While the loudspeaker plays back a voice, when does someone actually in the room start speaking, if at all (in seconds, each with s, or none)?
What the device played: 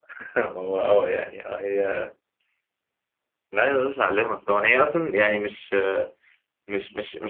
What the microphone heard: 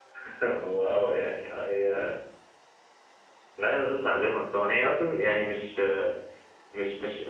none